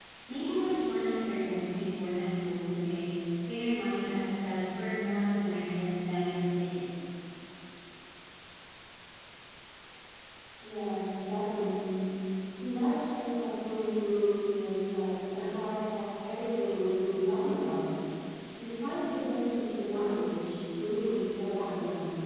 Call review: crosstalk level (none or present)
none